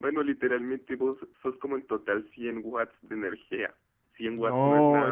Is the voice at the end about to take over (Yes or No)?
Yes